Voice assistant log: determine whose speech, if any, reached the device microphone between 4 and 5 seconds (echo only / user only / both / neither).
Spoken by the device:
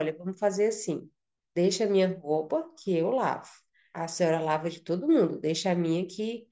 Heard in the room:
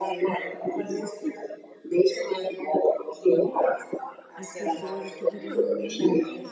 both